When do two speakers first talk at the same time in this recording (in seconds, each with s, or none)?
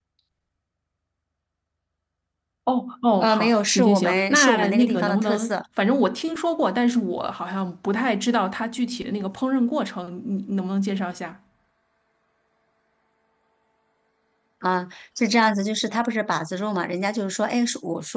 3.2 s